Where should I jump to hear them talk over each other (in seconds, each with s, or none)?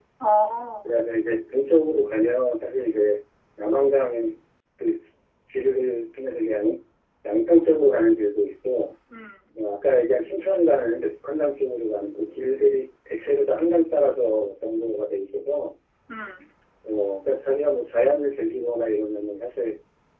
none